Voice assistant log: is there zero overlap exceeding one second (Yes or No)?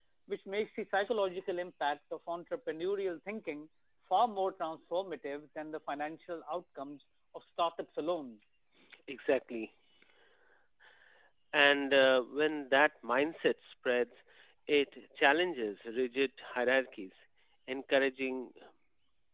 Yes